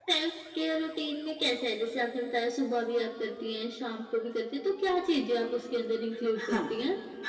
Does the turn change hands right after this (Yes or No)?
Yes